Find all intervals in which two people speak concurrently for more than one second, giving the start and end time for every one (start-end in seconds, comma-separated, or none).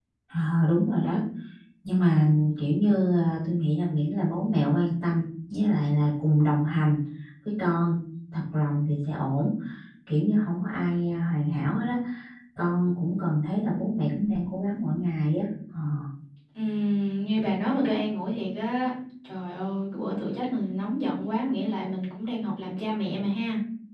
none